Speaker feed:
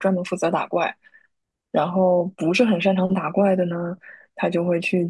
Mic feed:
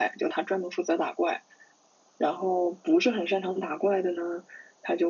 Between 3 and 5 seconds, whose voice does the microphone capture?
echo only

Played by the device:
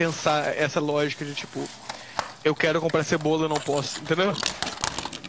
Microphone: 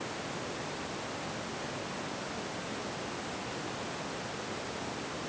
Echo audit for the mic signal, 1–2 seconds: neither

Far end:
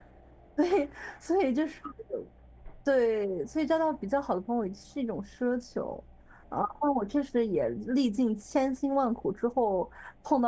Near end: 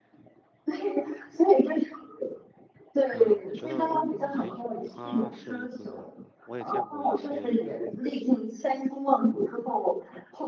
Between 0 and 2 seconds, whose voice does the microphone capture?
echo only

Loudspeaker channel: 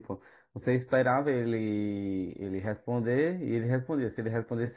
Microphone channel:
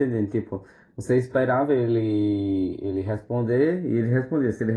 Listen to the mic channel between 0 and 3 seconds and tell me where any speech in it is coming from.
echo only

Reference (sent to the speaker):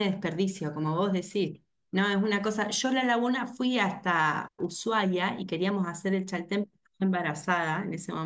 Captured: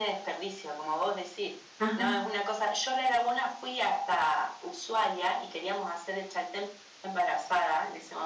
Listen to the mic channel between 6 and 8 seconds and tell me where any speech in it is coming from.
echo only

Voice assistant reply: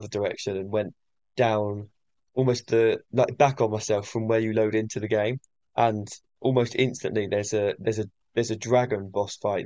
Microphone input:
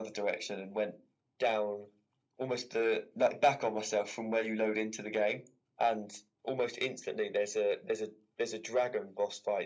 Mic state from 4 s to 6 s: echo only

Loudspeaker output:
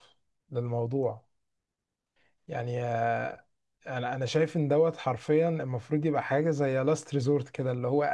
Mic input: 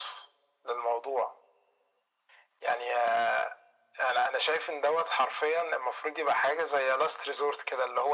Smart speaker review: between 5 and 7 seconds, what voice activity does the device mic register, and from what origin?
echo only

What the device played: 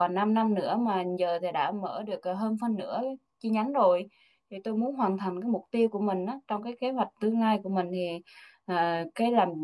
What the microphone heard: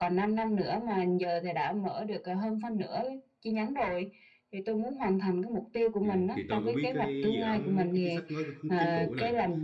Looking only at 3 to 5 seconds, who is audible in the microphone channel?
echo only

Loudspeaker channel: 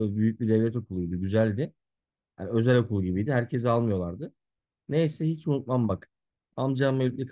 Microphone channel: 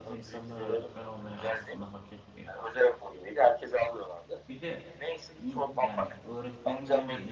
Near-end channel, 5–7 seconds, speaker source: both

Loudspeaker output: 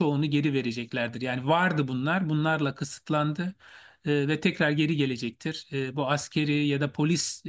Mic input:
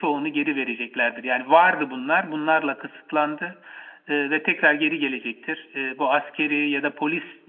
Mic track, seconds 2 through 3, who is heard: echo only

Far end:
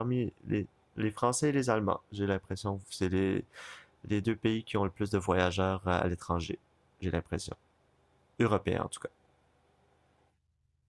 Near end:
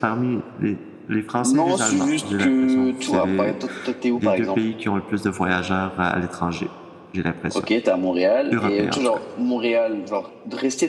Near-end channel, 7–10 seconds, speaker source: both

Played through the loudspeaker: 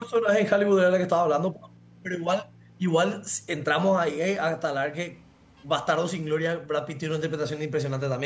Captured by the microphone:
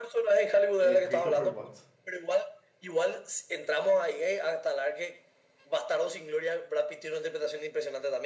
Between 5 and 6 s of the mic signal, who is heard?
echo only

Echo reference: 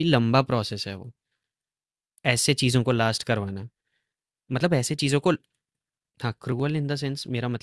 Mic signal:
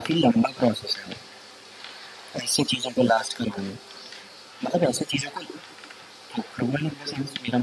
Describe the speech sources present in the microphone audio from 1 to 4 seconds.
echo only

